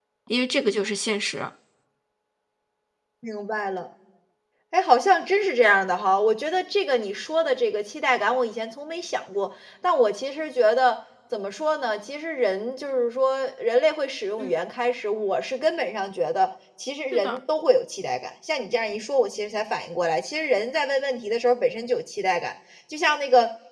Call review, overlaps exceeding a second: none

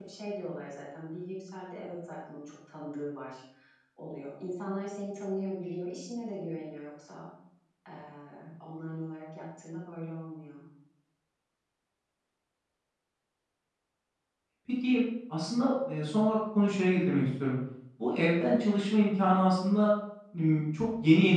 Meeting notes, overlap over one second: none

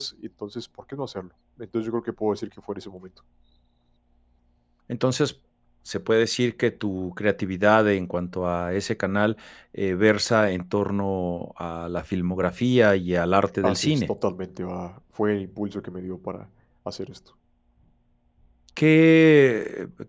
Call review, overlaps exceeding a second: none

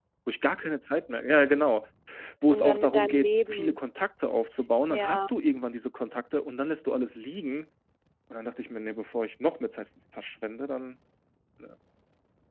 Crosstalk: present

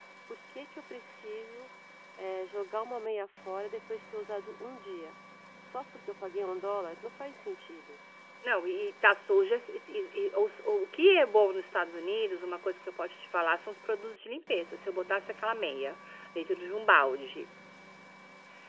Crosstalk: none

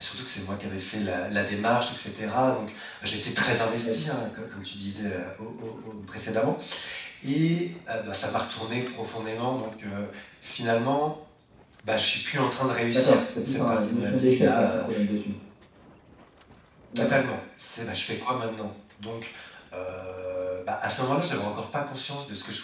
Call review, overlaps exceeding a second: present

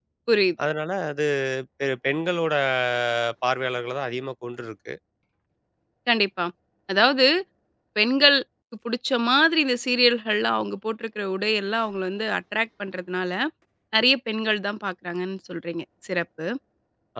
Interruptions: none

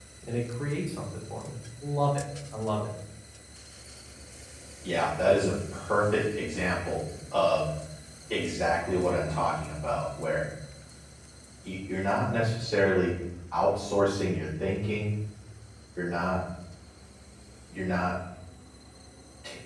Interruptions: none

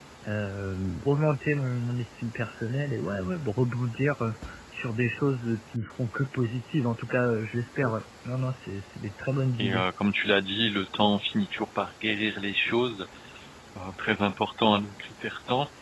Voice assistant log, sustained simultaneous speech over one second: none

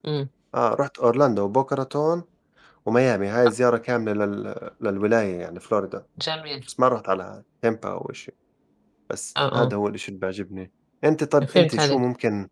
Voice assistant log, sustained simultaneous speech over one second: none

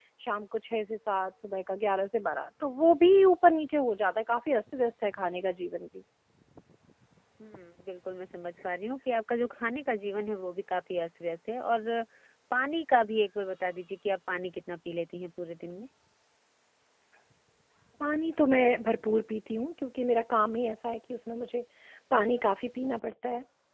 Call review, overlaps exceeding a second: none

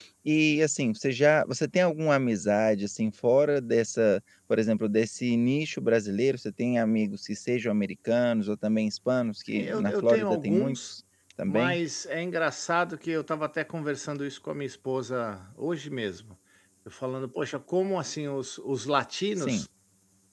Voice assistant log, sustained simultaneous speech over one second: present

